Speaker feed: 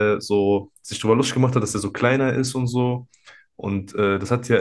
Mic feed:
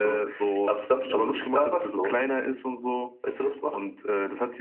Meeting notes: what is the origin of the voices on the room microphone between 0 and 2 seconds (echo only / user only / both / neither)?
both